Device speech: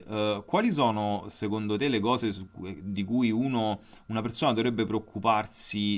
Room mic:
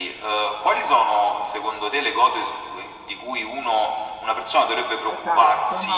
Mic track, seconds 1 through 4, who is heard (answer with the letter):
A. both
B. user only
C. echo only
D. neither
C